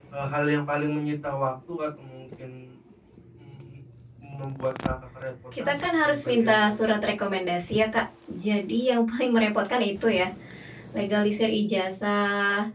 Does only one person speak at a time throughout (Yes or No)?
No